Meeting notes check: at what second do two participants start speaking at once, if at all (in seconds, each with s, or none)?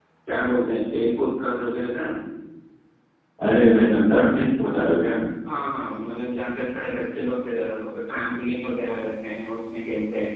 none